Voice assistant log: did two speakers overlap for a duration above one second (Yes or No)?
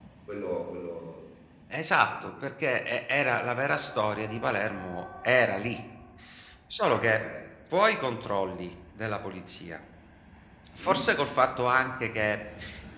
No